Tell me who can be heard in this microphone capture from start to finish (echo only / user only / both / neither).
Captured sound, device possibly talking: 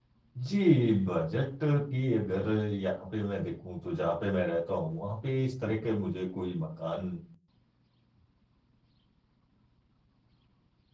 user only